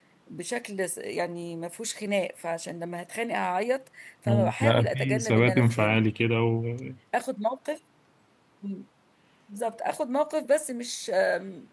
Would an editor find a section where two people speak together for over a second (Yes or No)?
Yes